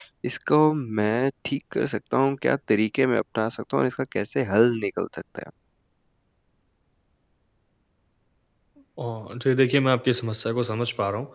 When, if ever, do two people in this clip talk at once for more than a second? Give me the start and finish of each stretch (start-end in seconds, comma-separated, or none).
none